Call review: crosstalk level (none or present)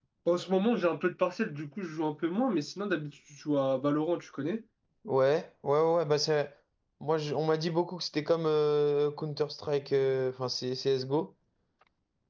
none